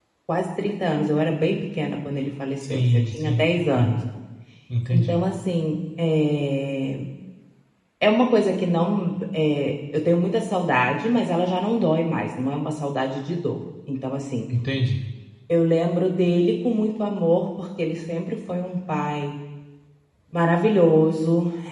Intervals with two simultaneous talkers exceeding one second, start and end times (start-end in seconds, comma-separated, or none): 2.7-4.0